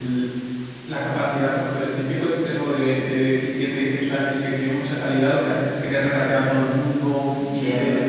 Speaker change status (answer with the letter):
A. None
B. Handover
A